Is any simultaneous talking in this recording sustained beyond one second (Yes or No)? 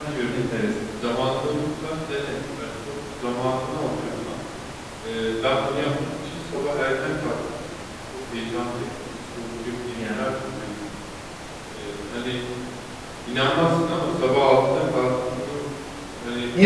No